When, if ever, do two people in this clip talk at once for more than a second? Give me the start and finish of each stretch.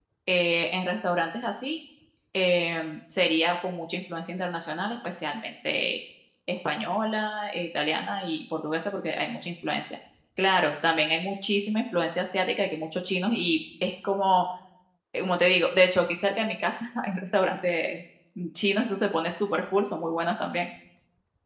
none

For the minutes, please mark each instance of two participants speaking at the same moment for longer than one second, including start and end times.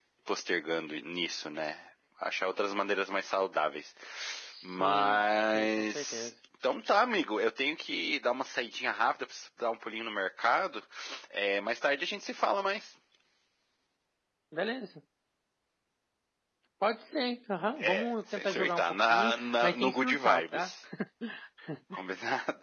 4.6-6.3, 17.8-20.7

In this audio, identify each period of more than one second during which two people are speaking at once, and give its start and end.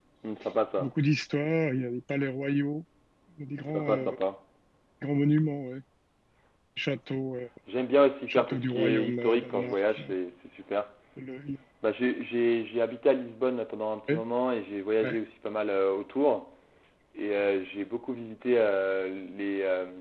8.3-10.1

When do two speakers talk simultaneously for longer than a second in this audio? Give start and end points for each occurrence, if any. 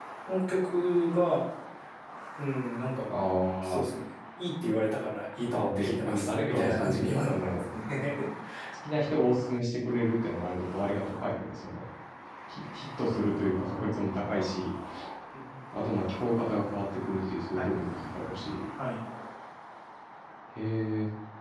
5.5-7.6

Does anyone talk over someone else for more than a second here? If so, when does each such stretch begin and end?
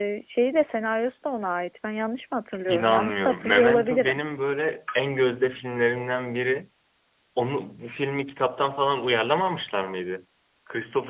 2.7-4.2

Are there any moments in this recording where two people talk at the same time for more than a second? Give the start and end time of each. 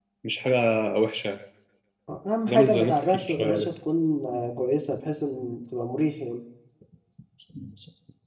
2.5-3.8

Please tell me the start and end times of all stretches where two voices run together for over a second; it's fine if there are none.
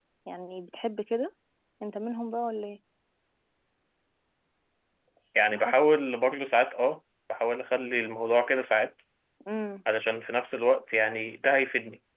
none

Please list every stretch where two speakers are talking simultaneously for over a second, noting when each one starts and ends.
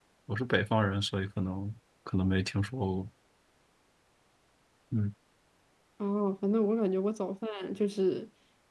none

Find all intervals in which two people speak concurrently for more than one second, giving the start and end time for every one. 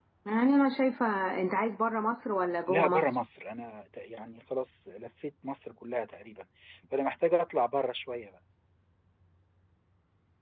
none

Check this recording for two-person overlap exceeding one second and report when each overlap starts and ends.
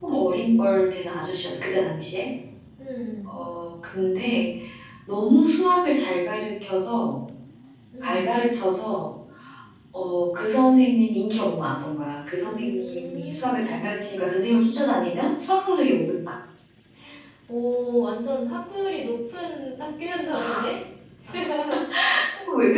12.4-14.0

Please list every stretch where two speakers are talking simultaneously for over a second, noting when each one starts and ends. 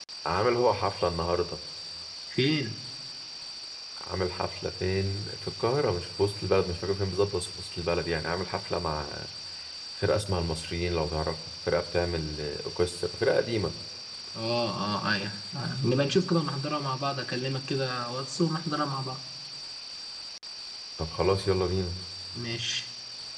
none

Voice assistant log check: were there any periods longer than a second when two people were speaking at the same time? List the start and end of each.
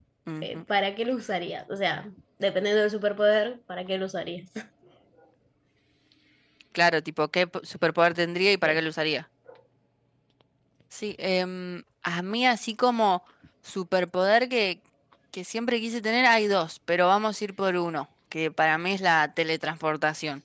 none

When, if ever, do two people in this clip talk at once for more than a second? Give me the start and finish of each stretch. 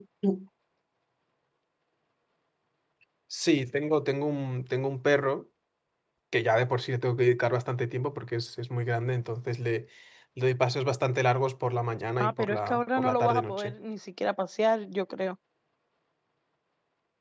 12.2-13.8

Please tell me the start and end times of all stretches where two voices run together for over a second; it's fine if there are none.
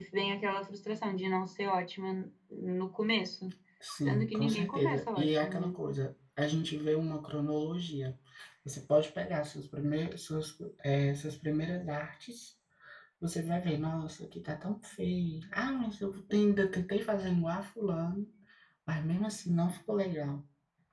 4.0-5.7

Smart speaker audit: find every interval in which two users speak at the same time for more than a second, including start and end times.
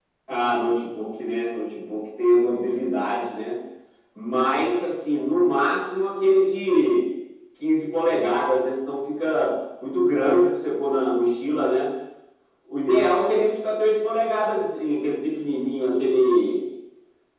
none

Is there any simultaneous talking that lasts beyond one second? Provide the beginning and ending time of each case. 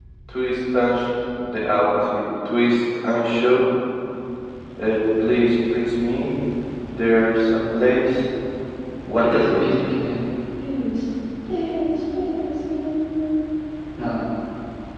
none

